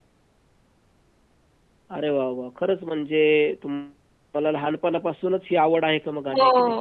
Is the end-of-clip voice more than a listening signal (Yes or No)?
Yes